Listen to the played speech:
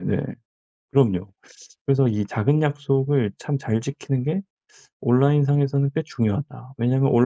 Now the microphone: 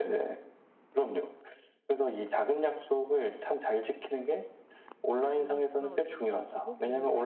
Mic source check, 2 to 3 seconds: echo only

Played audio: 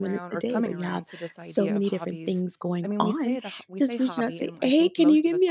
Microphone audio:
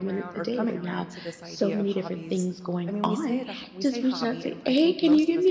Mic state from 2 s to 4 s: echo only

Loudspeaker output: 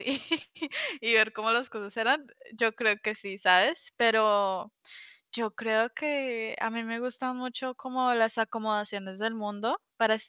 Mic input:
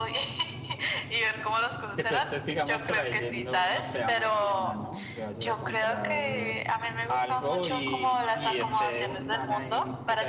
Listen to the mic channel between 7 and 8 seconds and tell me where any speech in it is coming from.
both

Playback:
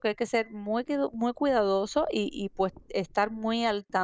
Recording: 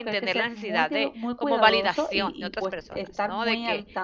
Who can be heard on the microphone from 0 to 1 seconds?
both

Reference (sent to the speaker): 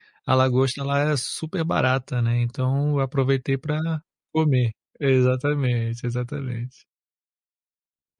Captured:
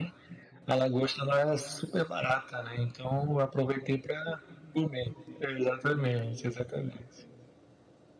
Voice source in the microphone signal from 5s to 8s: echo only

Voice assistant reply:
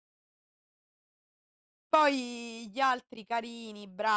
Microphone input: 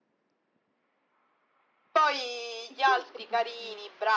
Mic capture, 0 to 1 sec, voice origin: neither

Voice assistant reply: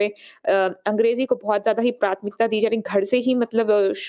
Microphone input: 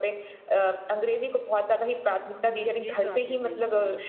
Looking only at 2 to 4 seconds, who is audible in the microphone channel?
both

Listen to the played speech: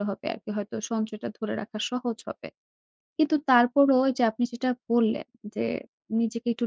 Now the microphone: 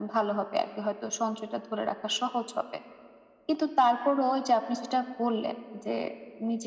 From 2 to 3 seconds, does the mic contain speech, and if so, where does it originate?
echo only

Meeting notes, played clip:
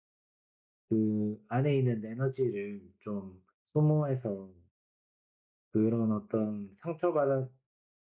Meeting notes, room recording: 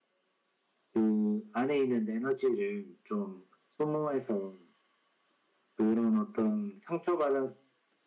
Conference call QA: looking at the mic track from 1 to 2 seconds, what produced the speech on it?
echo only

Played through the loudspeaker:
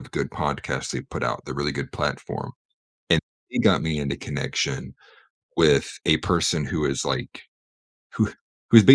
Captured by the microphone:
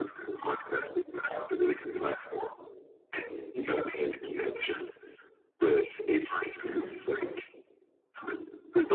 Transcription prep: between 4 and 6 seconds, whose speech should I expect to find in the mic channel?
echo only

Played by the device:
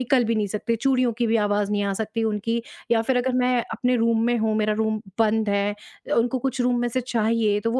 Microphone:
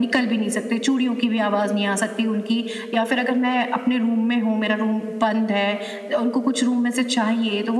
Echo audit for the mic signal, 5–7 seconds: echo only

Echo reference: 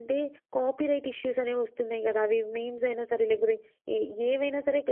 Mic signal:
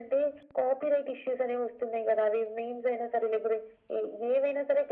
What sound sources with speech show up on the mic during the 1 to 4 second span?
echo only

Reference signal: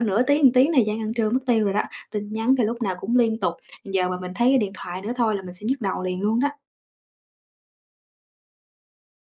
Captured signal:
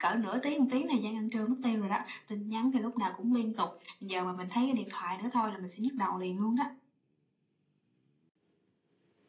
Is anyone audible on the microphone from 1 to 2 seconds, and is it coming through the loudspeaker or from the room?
echo only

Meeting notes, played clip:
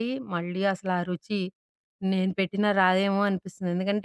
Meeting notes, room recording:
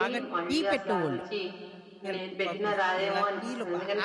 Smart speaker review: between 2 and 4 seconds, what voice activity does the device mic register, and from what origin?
both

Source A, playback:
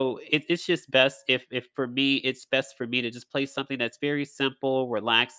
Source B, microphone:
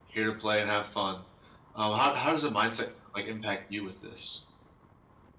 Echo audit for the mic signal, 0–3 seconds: user only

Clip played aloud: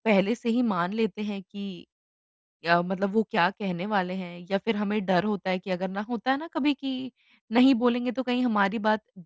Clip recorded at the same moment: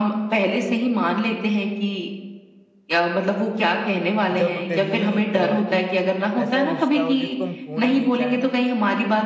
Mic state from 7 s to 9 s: both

